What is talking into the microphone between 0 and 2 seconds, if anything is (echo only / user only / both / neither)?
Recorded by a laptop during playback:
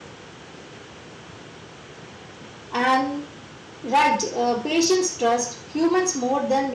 neither